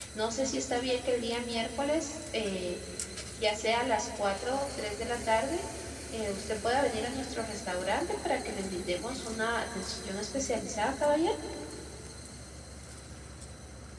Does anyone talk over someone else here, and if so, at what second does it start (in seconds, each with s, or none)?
none